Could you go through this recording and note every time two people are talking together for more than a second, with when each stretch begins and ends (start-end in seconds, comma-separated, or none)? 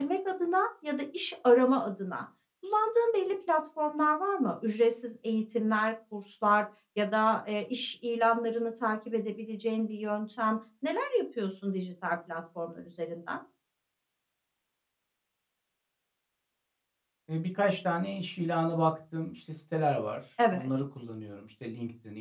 none